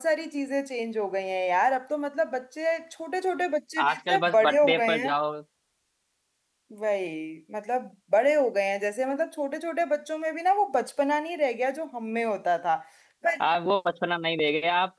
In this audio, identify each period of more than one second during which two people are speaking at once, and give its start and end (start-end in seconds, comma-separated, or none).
3.9-5.1